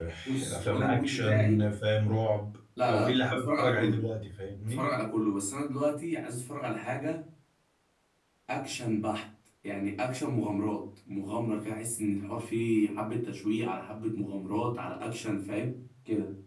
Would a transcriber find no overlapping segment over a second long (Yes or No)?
No